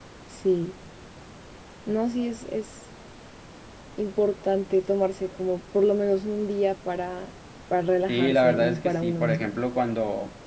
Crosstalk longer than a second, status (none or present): present